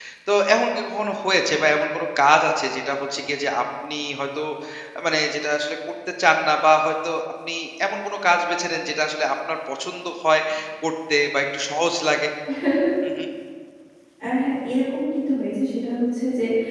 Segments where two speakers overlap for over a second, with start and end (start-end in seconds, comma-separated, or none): none